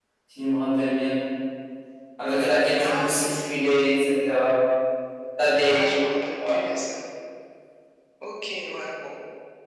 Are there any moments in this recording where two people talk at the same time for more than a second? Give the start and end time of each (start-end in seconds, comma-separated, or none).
2.8-4.0